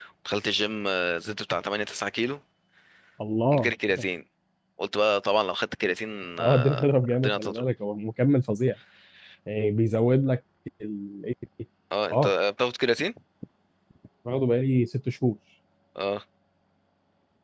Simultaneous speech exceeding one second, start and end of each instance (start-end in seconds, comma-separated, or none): 6.4-7.6